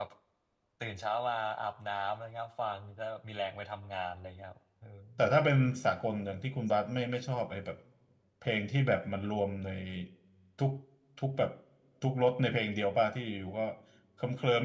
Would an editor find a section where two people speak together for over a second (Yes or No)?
No